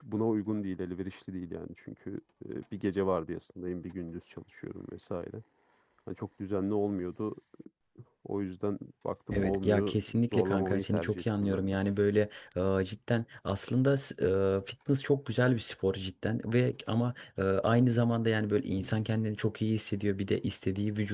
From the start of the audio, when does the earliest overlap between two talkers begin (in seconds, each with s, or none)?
9.3 s